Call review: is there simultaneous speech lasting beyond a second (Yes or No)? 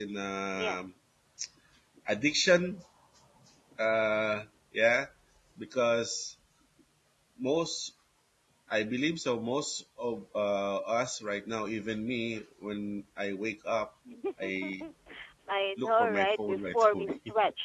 Yes